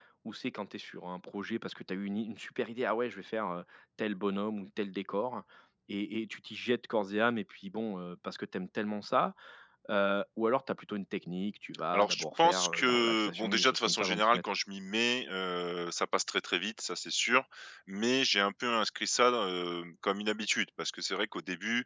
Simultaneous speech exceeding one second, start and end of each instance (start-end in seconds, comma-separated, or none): 11.9-14.4